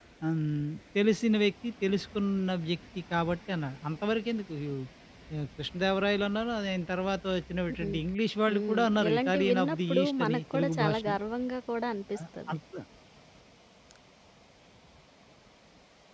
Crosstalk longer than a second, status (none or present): present